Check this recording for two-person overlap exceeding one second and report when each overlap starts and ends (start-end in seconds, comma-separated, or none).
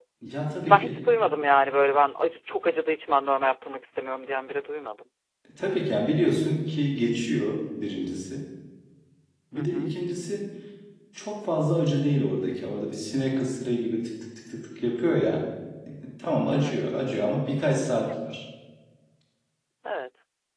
none